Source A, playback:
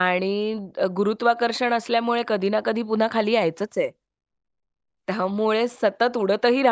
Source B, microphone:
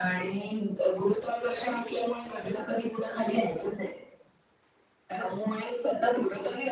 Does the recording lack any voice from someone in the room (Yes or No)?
Yes